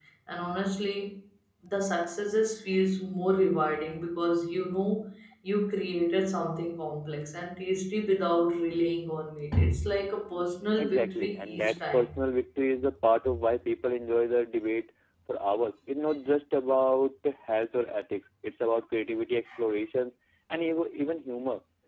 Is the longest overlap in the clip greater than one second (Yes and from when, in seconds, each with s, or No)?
Yes, from 10.8 s